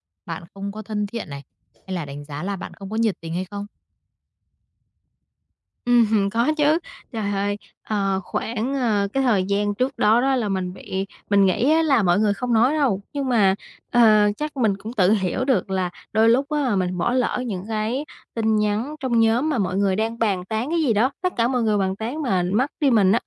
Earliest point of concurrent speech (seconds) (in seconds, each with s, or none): none